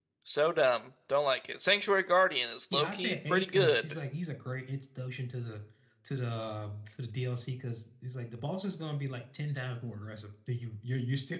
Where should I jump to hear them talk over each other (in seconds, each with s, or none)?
2.7 s